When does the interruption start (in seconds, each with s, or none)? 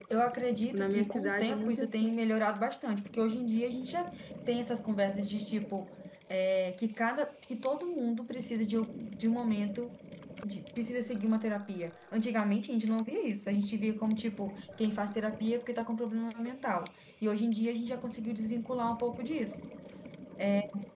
0.7 s